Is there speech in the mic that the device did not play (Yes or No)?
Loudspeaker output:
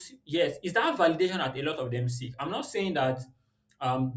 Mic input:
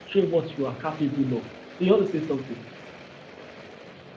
Yes